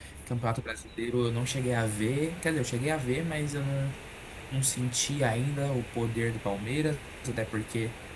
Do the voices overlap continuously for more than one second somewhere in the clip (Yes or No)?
No